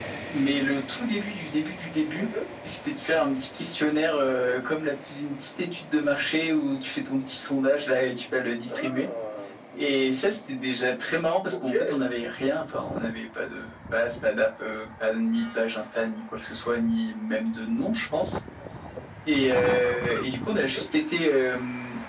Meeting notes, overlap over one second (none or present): none